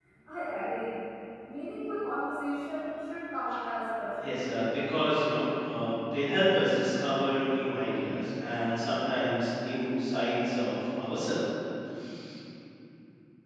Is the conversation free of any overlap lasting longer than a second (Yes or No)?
Yes